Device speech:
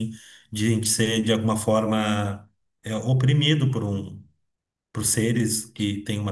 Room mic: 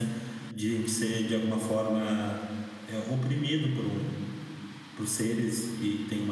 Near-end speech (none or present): none